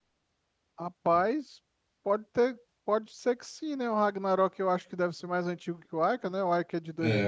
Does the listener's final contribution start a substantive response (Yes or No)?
Yes